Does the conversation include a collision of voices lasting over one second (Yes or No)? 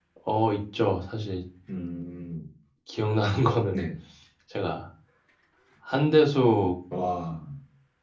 No